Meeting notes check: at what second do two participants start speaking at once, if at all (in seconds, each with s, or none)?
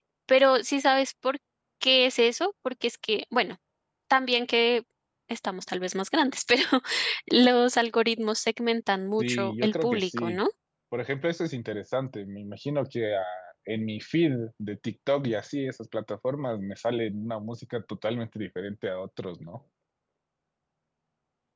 9.2 s